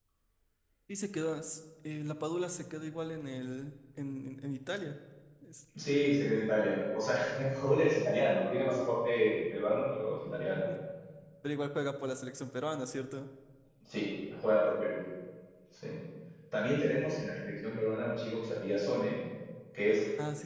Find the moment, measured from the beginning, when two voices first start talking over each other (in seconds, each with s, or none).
none